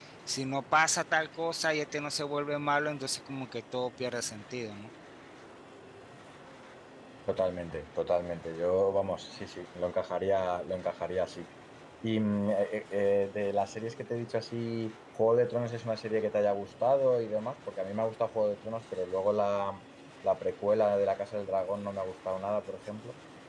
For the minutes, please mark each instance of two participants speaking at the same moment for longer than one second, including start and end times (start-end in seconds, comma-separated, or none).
none